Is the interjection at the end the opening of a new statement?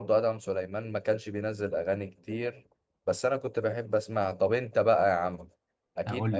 No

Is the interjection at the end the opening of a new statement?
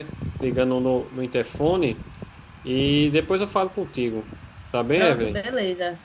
Yes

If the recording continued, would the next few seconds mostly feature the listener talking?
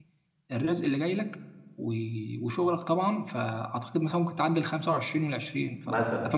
Yes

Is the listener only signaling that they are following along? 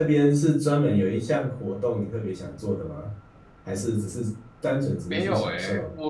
No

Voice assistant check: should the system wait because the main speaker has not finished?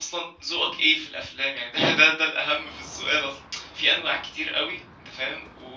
Yes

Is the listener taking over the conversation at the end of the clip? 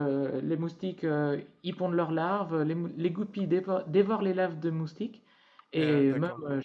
No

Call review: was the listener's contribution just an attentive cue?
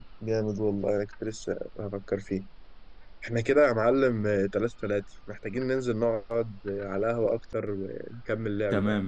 No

